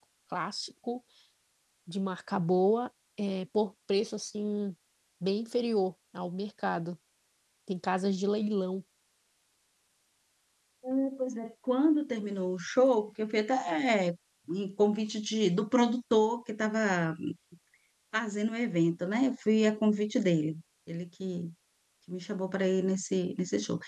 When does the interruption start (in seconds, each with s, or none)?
none